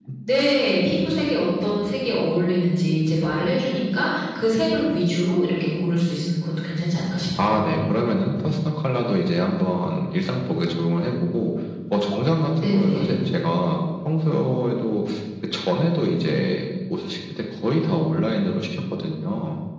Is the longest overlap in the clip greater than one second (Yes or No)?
No